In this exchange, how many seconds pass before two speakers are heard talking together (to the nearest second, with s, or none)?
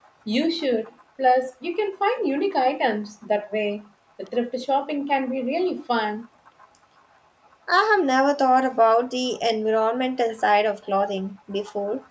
none